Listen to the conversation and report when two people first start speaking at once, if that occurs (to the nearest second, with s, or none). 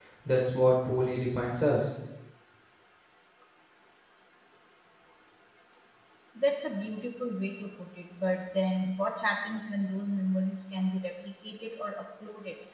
none